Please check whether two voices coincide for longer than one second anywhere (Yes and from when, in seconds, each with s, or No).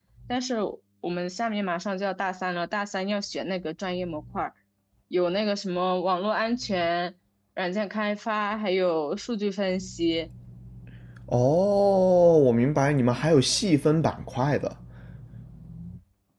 No